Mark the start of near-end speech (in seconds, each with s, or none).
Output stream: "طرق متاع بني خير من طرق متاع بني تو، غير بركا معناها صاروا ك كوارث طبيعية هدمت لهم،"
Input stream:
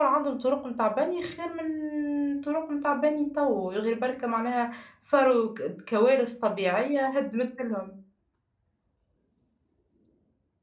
none